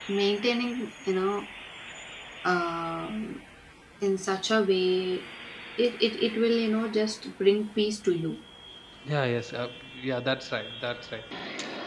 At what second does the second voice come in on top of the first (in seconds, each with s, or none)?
none